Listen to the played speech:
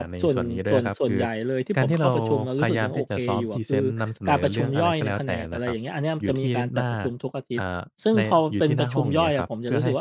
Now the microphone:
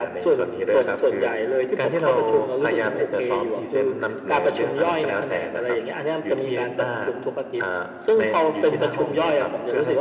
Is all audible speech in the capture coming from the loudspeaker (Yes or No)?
Yes